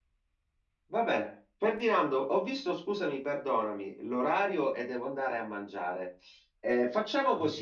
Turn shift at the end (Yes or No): No